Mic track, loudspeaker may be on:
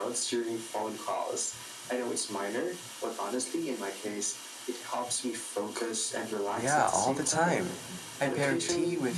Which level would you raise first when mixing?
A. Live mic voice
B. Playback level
B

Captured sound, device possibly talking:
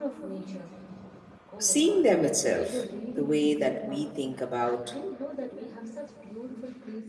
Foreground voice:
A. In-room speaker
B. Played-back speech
A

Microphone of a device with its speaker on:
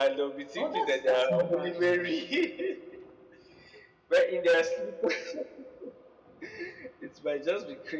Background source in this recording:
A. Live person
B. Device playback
A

